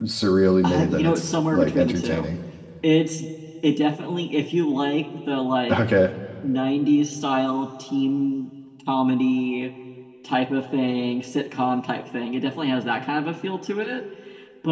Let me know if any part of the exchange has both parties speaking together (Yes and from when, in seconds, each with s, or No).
Yes, from 0.6 s